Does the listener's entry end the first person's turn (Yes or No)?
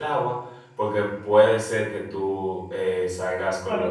Yes